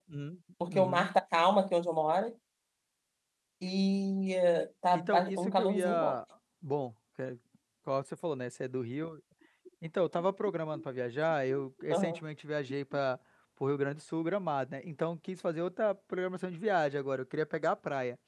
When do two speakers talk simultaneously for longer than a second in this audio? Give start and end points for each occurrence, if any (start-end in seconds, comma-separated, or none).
4.9-6.2